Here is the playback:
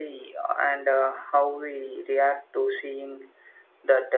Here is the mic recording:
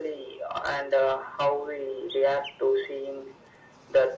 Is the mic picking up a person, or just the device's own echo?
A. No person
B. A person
A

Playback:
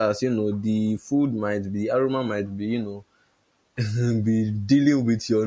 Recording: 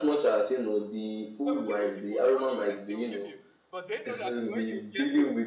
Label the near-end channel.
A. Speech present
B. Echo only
A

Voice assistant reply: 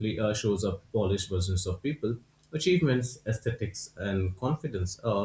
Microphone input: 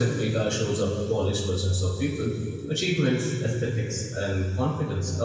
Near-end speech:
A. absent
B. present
A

